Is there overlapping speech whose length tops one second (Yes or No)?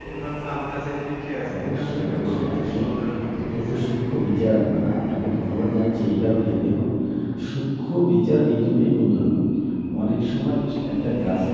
Yes